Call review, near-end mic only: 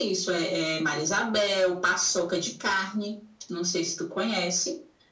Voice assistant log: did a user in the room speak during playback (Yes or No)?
No